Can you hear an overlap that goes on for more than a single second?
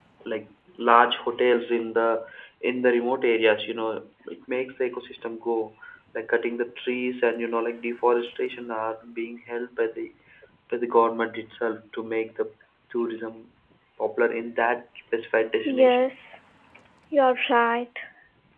No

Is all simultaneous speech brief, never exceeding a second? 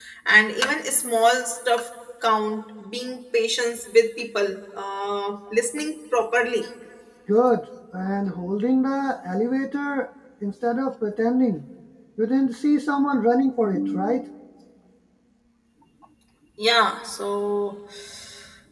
Yes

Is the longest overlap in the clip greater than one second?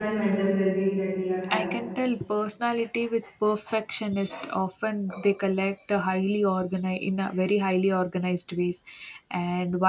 No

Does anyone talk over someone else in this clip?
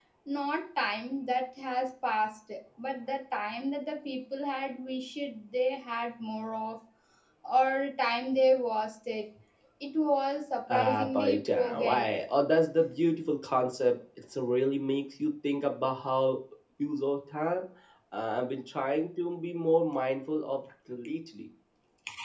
Yes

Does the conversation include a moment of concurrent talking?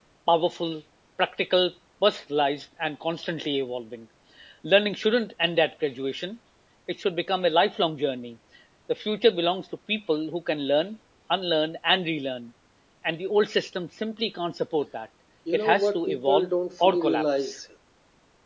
Yes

